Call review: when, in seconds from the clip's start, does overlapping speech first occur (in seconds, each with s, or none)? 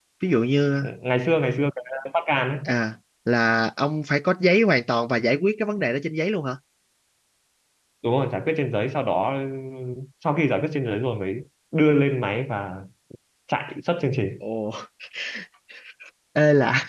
none